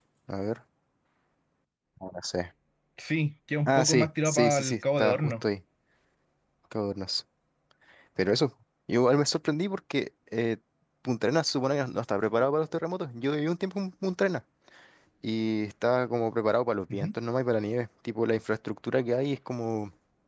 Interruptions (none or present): present